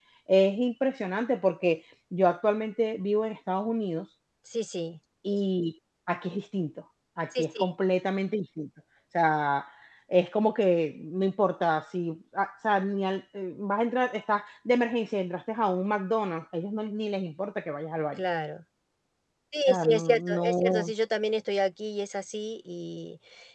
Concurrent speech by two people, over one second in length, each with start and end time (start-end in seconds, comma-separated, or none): 19.7-20.9